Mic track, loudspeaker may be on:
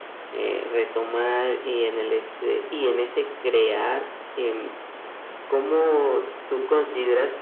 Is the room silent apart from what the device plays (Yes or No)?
Yes